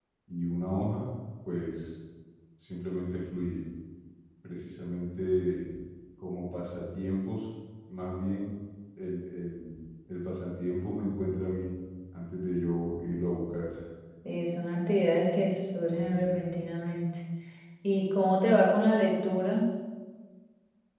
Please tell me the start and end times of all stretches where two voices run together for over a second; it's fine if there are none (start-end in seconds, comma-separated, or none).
none